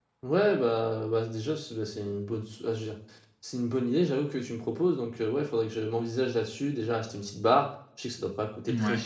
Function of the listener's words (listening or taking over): listening